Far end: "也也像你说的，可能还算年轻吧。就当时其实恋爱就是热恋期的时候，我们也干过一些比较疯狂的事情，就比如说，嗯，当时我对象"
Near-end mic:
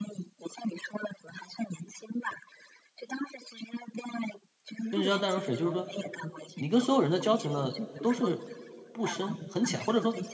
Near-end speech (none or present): present